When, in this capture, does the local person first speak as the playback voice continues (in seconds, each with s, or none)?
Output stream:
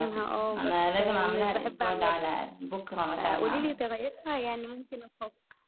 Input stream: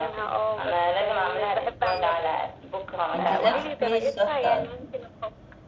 3.1 s